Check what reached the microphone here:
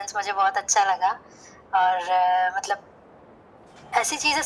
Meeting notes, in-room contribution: none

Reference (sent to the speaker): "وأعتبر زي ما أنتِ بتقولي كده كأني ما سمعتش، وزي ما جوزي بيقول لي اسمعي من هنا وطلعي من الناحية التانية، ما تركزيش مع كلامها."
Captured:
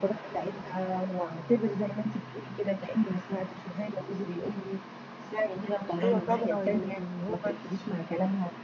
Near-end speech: present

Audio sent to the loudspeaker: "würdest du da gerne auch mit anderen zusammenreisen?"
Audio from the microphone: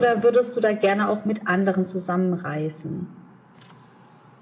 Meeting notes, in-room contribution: none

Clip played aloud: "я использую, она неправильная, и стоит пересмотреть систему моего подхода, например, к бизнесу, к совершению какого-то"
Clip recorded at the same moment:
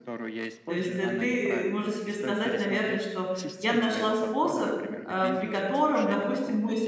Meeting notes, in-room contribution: present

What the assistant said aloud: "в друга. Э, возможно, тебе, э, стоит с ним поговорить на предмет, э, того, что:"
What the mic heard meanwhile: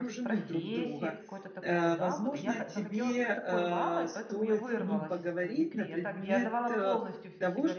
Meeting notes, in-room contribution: present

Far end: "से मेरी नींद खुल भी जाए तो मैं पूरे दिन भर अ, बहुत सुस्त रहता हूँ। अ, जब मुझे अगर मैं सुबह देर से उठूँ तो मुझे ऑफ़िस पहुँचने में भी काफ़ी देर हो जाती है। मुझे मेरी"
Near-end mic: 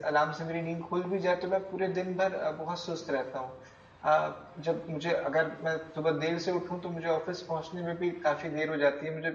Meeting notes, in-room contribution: none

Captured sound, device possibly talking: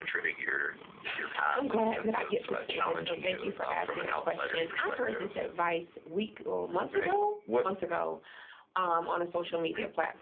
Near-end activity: none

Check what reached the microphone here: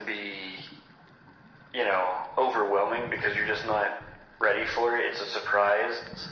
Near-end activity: none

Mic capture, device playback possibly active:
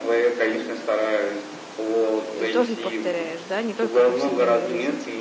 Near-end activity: present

